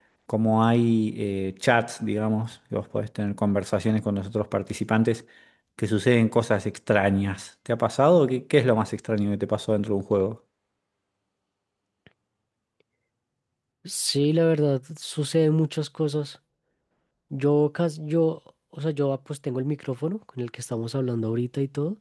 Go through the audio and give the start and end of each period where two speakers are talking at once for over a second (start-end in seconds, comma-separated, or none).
none